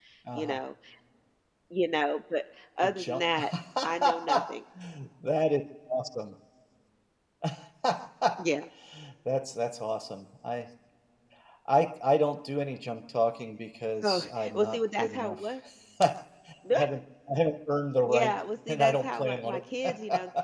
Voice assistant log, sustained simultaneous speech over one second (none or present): present